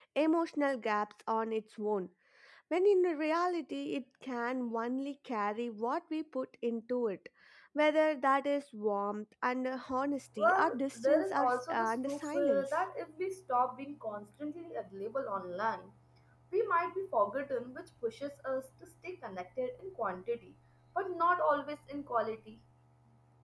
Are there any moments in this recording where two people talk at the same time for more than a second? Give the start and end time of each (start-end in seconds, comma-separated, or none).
10.4-12.7